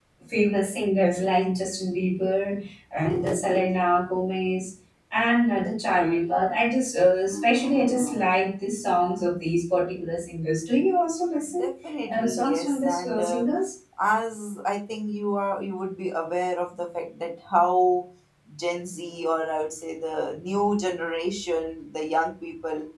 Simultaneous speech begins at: 12.1 s

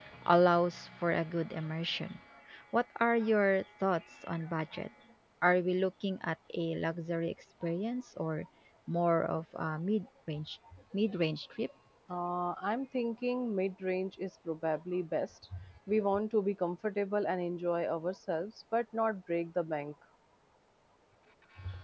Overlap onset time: none

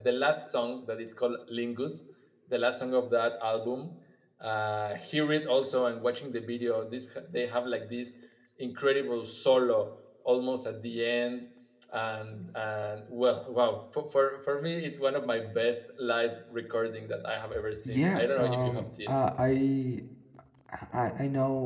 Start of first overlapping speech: 17.9 s

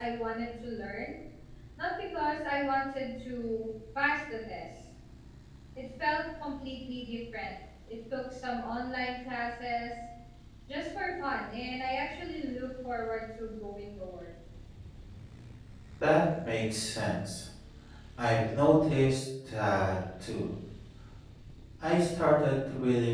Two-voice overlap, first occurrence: none

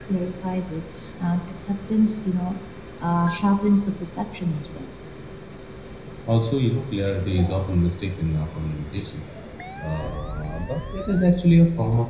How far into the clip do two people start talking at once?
none

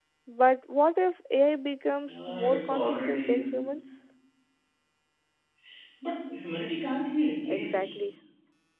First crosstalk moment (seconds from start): 2.1 s

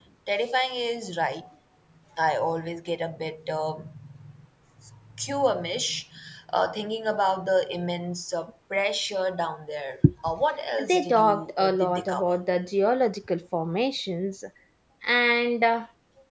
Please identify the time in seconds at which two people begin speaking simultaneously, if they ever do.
10.8 s

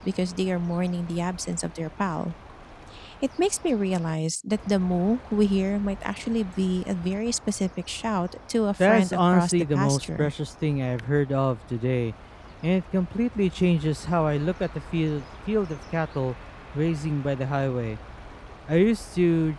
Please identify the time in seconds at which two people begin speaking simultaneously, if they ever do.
8.8 s

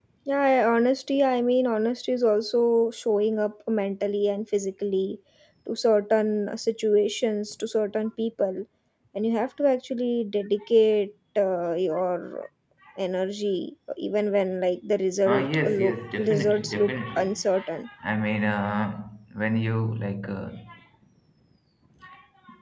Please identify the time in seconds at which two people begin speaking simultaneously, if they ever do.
15.2 s

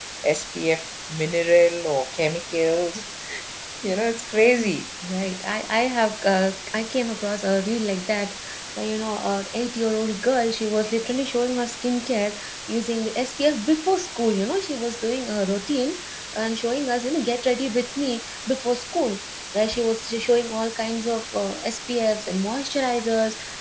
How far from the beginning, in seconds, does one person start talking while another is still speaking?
none

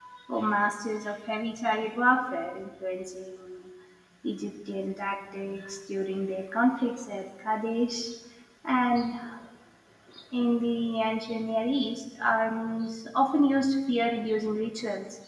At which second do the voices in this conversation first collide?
none

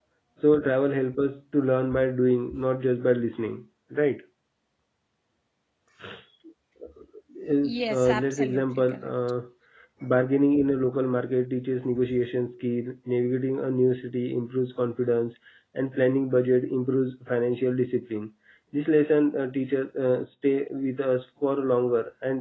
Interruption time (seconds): 7.6 s

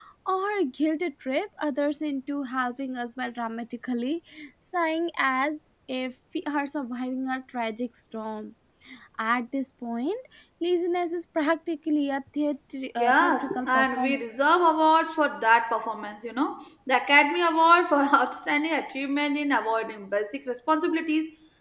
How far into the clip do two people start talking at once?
13.0 s

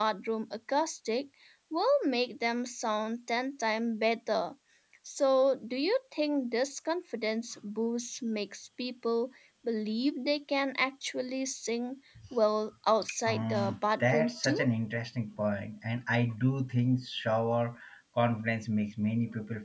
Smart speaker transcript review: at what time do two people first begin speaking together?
13.3 s

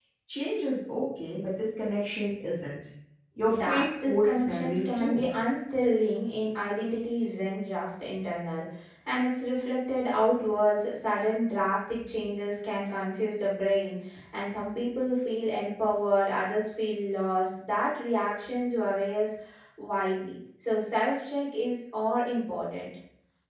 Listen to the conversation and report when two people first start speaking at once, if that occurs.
3.5 s

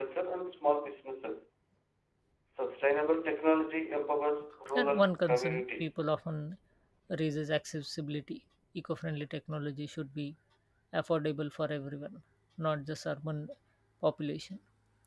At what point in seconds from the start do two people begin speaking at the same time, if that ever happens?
4.7 s

